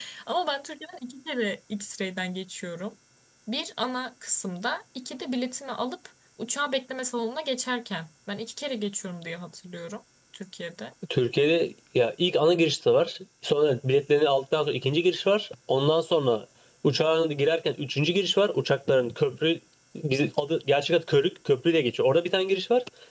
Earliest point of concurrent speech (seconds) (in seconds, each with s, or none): none